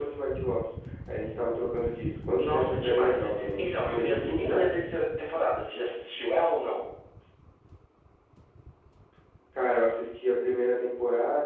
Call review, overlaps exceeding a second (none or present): present